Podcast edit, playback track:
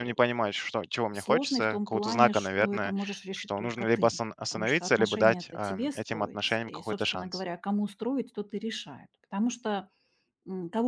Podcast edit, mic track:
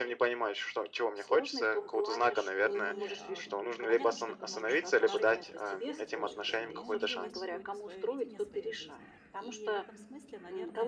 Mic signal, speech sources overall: both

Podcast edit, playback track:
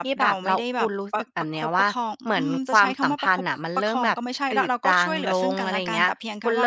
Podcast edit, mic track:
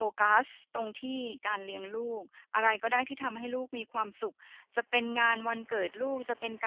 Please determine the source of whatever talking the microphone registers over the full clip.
user only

